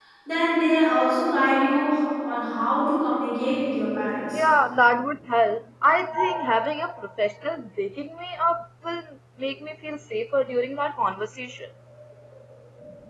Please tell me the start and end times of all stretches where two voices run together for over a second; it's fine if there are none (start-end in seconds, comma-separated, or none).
none